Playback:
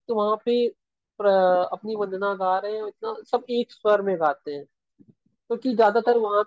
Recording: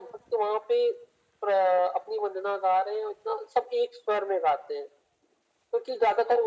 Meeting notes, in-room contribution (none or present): none